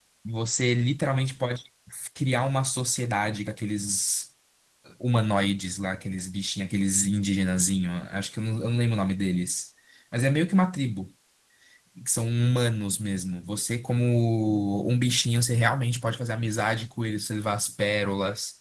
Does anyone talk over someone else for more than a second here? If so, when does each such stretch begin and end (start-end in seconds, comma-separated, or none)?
none